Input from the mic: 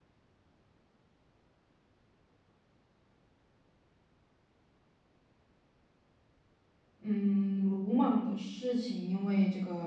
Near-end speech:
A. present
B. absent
A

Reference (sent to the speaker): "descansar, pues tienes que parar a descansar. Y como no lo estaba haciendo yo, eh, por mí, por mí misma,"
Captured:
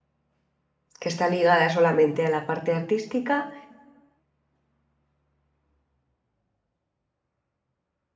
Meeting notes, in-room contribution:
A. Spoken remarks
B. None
A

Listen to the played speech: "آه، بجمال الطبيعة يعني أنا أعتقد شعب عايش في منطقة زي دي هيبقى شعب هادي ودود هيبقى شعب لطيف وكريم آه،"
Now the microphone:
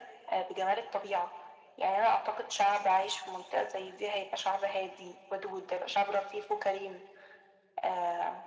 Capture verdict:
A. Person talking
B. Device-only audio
B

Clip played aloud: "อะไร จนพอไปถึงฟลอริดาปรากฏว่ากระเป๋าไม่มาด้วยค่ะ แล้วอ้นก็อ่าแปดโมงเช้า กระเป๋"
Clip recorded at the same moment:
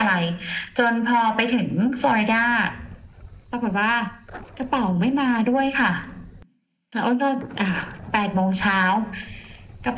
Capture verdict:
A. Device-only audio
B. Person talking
A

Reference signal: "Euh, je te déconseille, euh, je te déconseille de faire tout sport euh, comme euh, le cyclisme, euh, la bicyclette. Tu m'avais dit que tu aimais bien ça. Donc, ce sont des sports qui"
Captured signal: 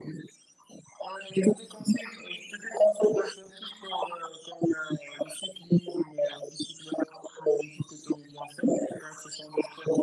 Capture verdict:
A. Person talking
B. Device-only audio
B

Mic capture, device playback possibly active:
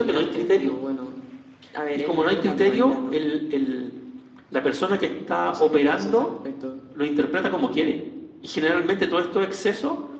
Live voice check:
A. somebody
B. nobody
B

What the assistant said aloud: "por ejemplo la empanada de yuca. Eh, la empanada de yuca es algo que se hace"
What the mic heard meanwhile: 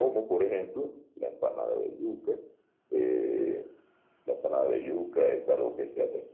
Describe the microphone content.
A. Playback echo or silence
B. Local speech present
A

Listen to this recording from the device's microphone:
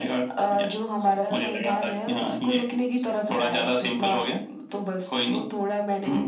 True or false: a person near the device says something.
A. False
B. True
A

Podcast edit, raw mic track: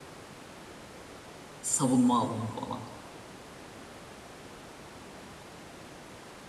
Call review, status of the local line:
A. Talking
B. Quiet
A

